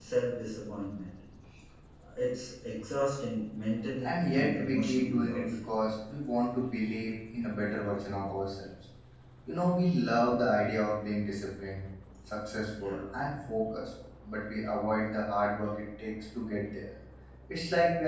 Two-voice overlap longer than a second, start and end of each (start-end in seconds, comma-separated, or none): 4.0-5.5